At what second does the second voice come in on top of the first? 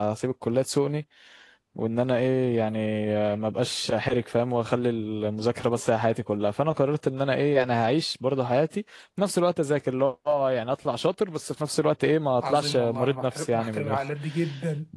12 s

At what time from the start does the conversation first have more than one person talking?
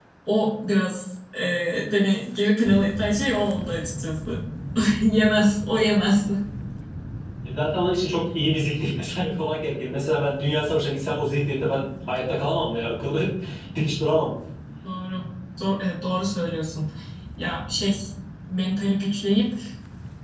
none

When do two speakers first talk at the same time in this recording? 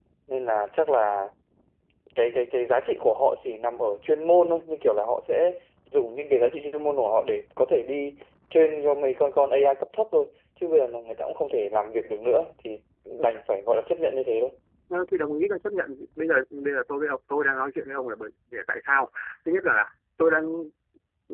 none

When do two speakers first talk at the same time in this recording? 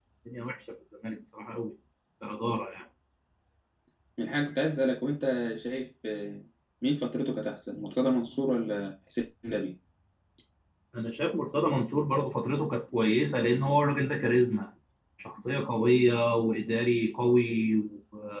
none

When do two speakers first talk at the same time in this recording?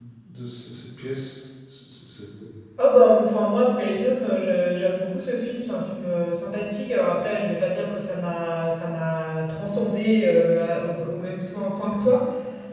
none

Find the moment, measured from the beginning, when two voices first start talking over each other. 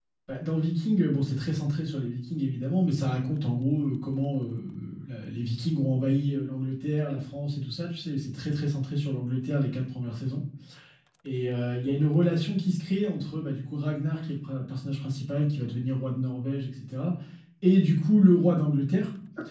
none

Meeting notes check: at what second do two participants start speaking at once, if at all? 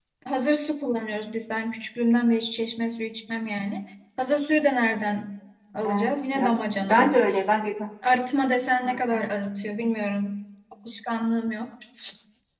6 s

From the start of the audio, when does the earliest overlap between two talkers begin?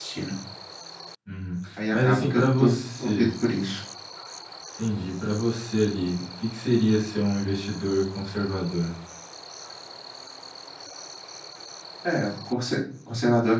2 s

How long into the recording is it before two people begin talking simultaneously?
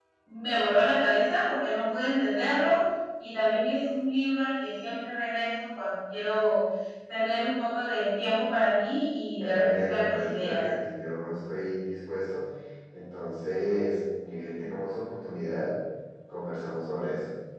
9 s

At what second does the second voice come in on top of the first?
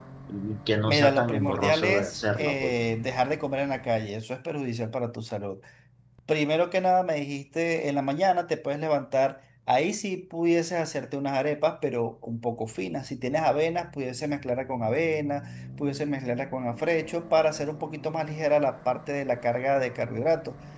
1 s

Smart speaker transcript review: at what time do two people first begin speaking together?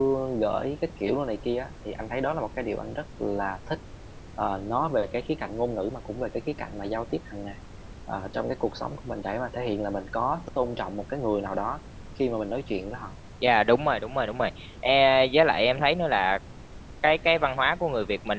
none

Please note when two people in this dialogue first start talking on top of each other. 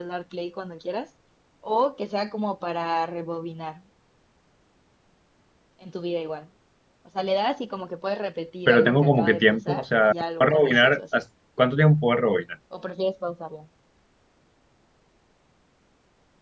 9 s

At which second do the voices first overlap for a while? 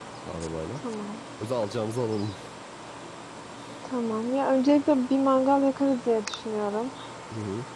none

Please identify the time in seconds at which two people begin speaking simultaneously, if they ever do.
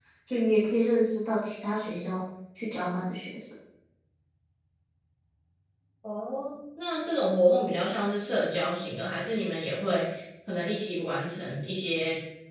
none

